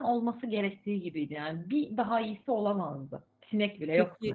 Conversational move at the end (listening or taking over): taking over